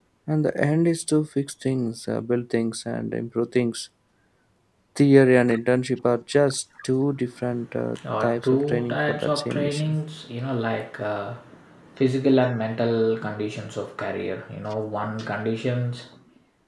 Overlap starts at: 8.2 s

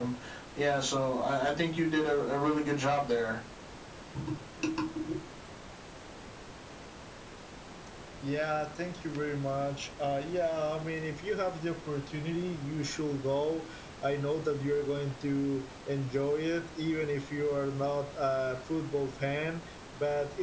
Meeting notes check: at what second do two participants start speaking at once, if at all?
none

